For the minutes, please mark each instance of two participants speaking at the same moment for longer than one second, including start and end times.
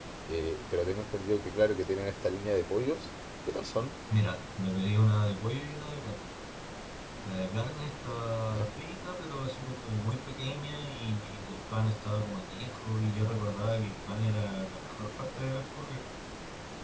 none

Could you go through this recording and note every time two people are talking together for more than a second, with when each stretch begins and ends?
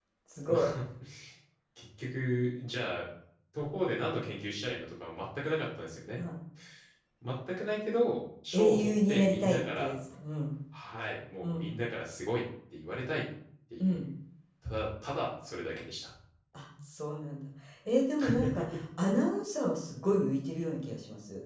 8.5-9.9

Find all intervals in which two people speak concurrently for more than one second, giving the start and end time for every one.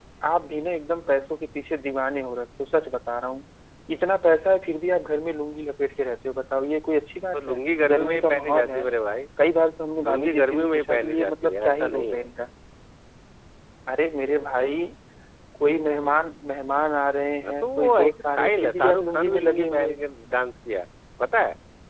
7.3-8.9, 10.1-12.2, 17.4-20.0

